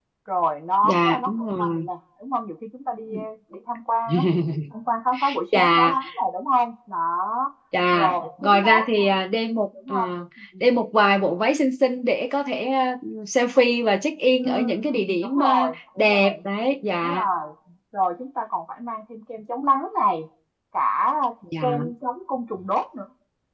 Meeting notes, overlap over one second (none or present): present